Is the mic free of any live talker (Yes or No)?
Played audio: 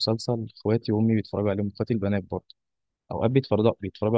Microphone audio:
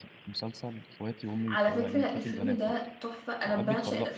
No